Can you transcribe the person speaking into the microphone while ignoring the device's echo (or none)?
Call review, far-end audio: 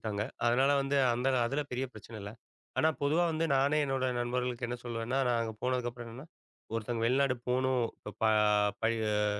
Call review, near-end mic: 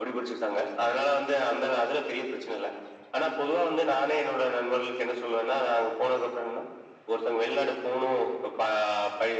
none